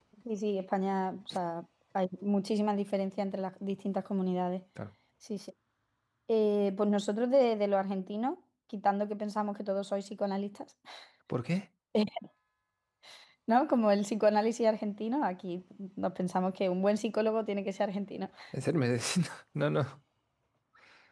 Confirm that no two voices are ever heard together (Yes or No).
Yes